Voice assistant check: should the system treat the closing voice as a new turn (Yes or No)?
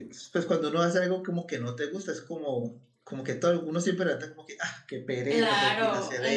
Yes